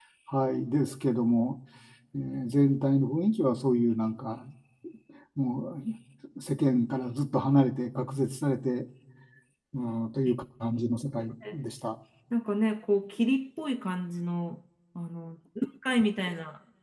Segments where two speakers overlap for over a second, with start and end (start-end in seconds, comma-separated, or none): none